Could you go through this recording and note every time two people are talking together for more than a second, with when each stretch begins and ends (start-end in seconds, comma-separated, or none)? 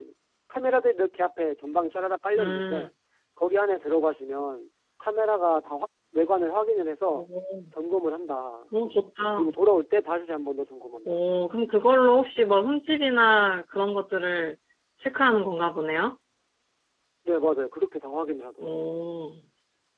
none